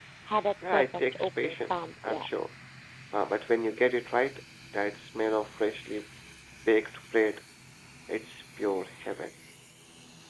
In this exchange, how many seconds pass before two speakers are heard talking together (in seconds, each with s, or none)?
0.7 s